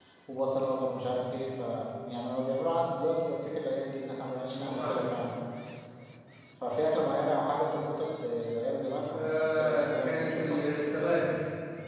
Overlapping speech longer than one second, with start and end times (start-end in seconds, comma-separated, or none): 9.1-10.6